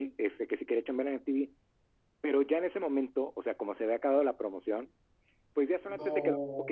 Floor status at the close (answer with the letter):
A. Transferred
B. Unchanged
B